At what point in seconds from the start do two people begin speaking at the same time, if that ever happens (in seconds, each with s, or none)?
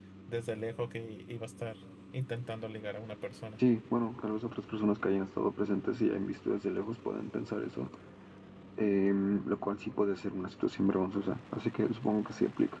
none